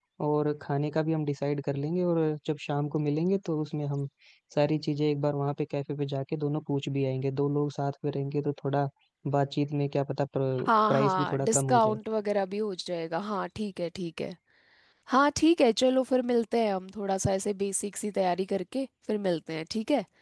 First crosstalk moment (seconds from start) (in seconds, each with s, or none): 10.6 s